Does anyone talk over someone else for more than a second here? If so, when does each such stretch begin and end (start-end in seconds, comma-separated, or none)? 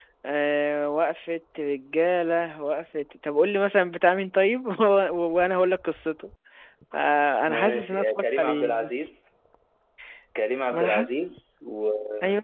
7.5-9.1